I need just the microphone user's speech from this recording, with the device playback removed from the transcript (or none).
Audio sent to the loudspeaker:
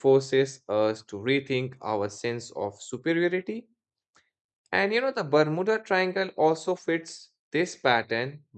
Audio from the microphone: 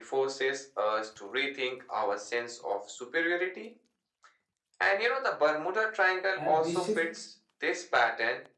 And this shift